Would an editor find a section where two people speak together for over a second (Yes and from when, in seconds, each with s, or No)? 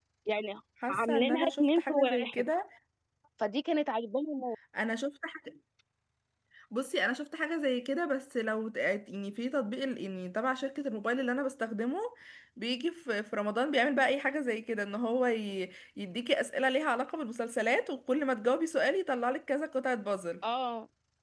Yes, from 0.9 s